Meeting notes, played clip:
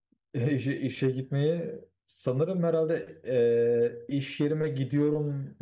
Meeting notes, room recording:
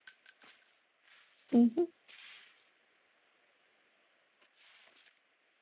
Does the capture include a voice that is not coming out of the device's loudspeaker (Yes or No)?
Yes